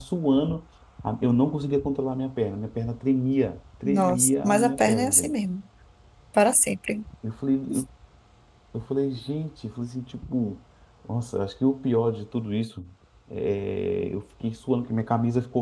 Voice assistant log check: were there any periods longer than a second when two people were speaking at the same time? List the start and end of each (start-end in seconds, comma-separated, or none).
3.8-5.3